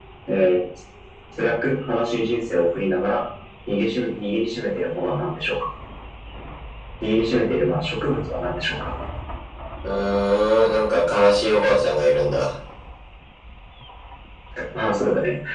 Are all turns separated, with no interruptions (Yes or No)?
Yes